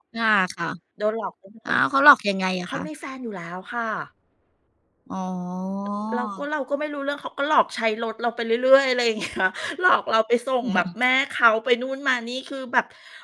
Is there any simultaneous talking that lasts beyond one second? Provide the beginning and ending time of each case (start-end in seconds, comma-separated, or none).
none